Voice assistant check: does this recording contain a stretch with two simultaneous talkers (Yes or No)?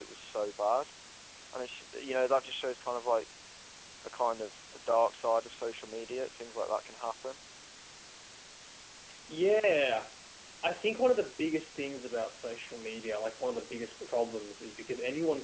No